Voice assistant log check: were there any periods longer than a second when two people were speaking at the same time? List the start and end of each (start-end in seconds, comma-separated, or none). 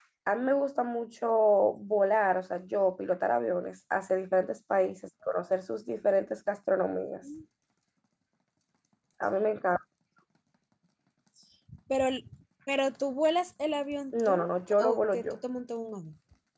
14.1-15.3